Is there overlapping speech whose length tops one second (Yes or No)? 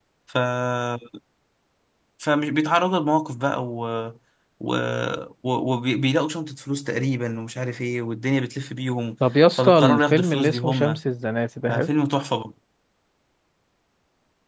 Yes